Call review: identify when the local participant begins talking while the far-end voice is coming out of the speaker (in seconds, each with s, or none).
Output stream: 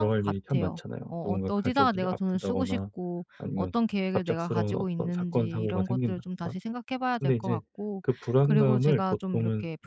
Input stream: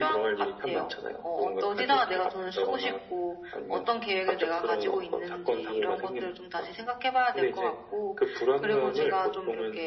none